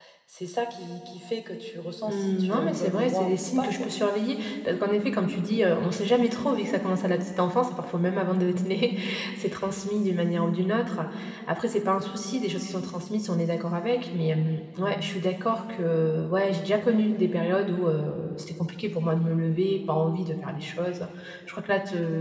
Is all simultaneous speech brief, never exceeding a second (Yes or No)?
No